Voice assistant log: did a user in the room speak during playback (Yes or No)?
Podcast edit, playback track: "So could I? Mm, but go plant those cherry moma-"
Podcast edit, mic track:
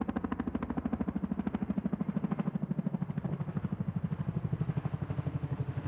No